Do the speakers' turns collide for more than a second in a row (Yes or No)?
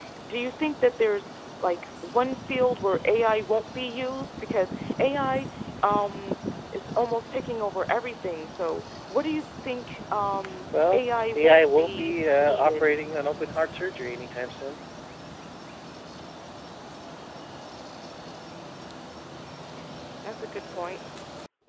Yes